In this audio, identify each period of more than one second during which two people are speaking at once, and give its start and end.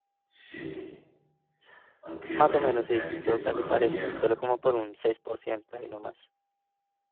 2.4-4.3

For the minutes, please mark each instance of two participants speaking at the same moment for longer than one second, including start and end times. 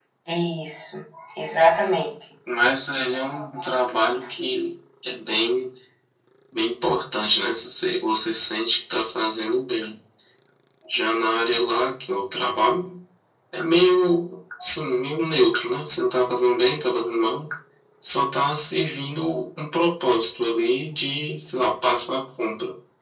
none

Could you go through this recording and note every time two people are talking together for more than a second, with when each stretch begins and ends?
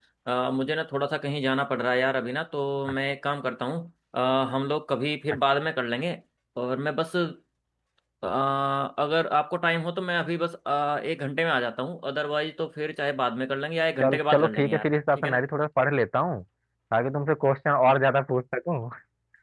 14.0-15.4

